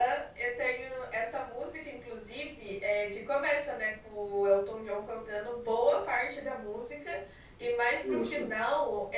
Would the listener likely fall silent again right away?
Yes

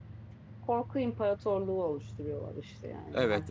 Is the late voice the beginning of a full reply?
Yes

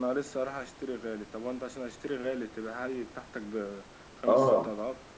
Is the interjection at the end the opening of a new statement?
Yes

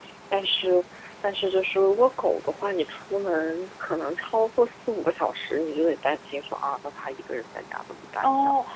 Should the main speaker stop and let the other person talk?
Yes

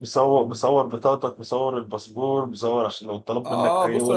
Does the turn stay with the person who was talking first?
No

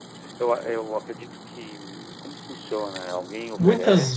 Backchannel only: No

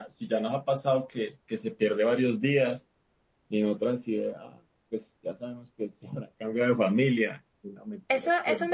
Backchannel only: No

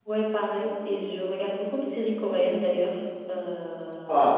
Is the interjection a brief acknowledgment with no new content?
No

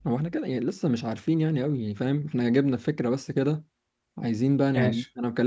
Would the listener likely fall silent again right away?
Yes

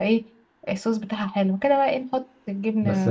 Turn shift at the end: Yes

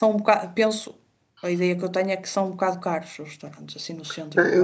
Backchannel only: No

